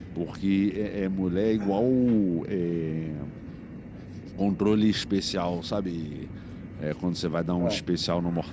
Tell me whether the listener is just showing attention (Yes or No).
Yes